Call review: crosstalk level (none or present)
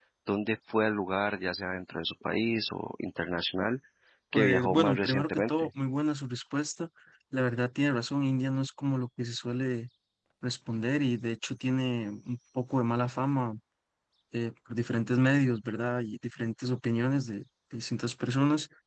present